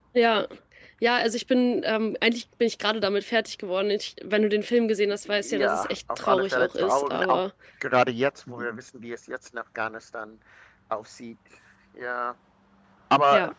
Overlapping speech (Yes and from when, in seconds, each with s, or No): Yes, from 5.2 s